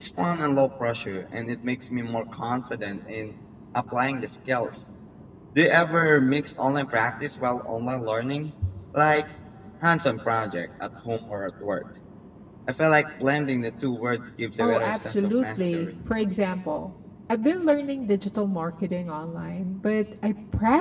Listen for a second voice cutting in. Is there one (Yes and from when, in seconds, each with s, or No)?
Yes, from 14.6 s